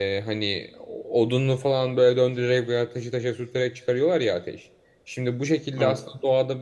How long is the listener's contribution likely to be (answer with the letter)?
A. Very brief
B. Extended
A